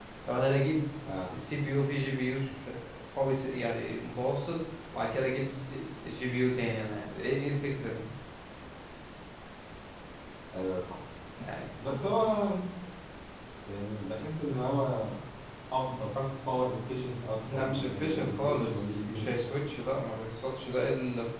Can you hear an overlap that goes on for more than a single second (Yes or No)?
Yes